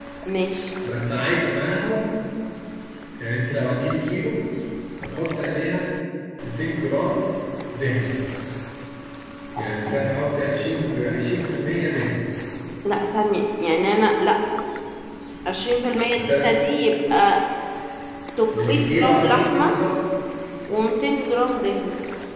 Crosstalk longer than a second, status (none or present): present